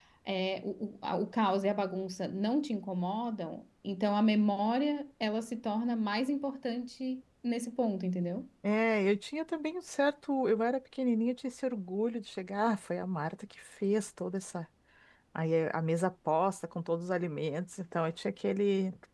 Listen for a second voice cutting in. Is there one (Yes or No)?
No